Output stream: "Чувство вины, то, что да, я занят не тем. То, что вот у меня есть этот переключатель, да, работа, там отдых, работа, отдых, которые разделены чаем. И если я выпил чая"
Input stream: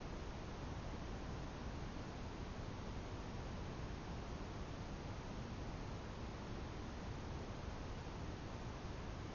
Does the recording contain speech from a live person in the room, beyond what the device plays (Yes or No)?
No